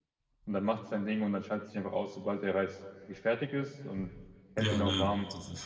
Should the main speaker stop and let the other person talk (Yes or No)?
Yes